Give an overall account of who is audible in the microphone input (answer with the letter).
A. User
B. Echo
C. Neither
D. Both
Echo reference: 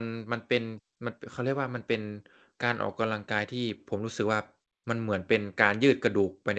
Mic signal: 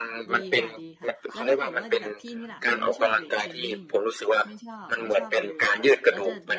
D